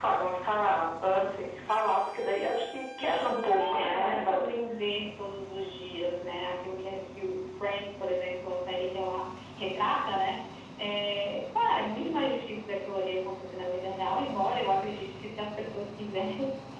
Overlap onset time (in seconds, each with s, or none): 3.0 s